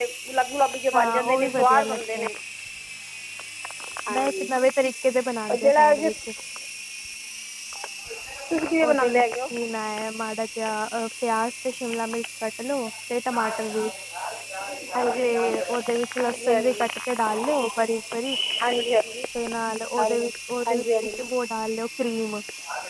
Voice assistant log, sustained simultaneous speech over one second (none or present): present